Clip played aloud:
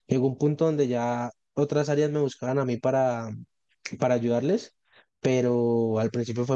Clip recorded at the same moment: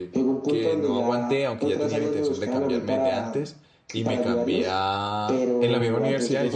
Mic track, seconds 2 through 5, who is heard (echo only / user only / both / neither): both